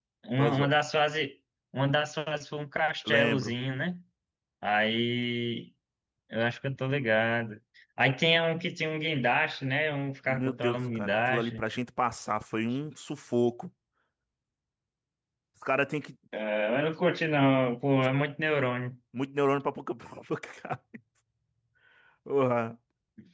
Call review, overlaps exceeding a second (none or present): present